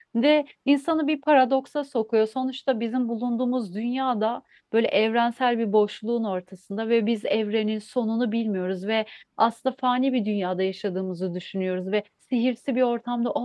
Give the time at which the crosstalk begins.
none

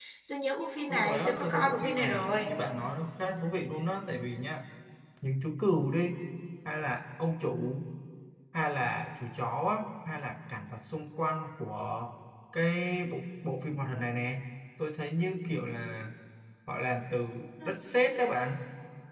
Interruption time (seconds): 0.9 s

